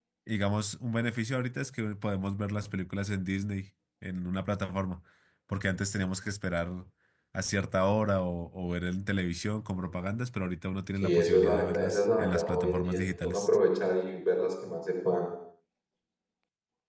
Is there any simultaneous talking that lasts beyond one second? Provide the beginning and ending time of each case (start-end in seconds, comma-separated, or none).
11.0-13.6